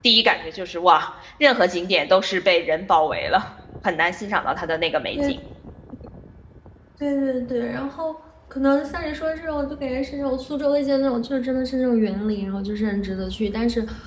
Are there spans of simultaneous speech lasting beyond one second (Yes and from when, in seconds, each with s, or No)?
No